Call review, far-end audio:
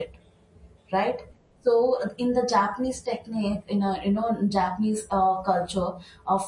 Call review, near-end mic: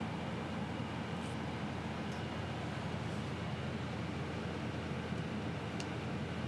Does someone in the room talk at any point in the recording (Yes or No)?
No